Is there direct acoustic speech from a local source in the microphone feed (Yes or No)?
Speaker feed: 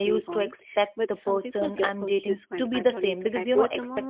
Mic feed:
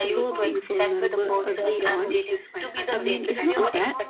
Yes